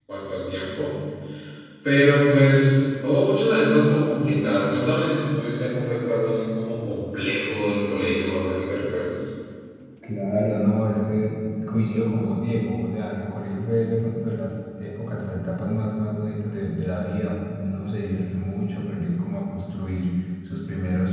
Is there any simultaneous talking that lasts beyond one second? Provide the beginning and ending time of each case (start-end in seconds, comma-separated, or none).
none